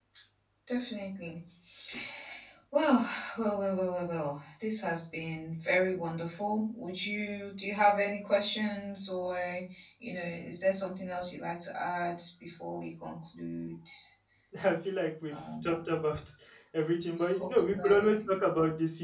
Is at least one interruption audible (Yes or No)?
Yes